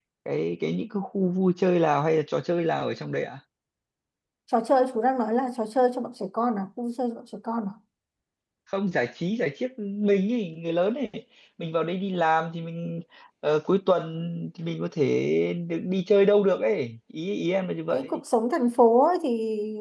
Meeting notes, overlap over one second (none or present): none